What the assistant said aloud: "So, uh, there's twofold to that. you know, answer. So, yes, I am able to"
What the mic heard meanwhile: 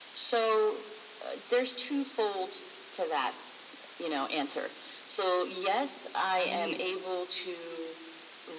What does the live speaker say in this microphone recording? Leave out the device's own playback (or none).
right.